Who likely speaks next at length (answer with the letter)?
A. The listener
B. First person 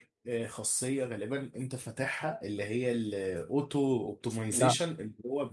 B